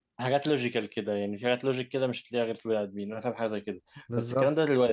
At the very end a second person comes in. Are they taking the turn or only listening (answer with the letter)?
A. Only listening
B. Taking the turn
A